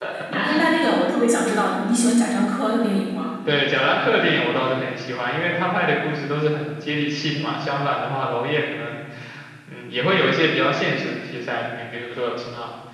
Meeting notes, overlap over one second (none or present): none